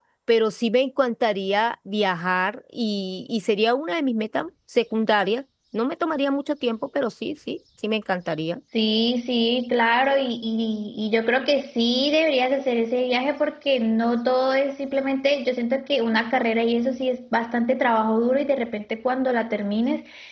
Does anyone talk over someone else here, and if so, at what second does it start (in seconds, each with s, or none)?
none